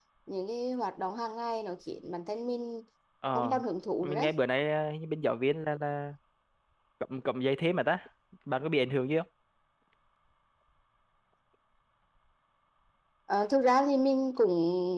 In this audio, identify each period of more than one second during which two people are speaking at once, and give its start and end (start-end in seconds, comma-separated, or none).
none